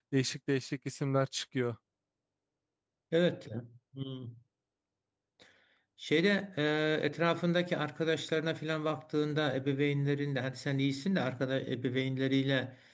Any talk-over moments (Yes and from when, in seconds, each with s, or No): No